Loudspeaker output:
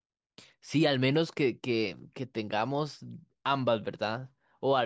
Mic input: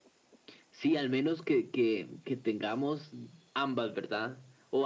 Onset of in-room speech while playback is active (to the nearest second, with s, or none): none